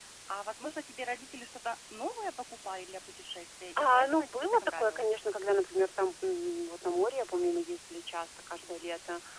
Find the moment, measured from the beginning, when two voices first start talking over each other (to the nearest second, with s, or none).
4 s